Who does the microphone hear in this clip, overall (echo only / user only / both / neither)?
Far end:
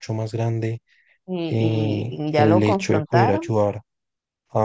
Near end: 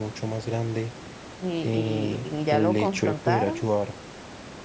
echo only